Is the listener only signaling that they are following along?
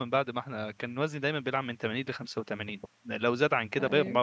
Yes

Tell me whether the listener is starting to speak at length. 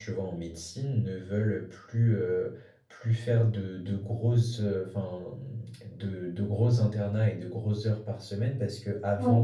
No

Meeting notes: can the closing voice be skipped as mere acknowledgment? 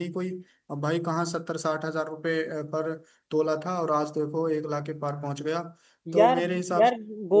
No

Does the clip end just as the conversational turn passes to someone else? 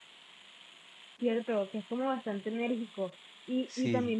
No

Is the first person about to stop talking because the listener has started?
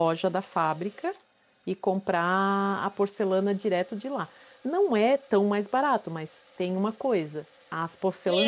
Yes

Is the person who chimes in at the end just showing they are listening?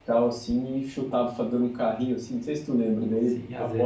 No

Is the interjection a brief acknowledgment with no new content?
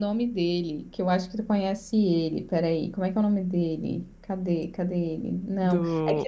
Yes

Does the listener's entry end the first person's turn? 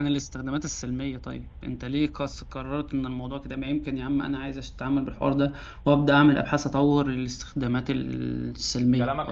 Yes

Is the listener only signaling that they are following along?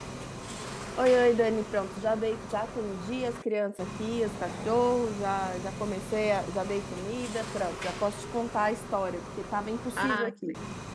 No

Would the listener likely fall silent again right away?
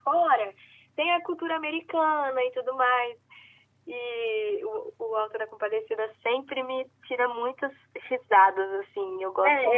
No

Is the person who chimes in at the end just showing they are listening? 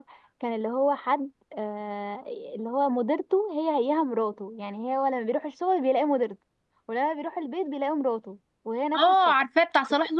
No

